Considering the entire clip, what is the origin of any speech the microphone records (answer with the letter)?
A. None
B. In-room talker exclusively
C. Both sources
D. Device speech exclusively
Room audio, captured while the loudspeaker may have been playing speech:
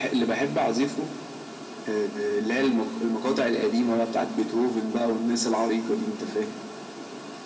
D